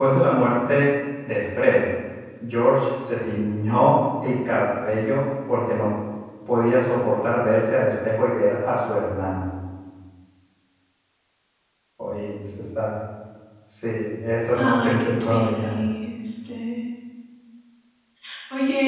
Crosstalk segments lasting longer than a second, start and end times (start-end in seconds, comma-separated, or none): 14.6-15.8